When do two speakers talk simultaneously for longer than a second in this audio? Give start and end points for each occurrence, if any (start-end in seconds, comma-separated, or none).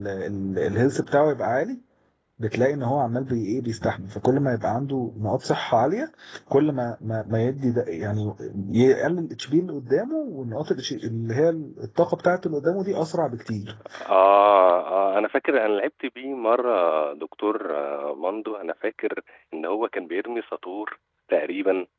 none